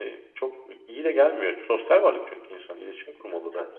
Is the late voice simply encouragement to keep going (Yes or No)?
No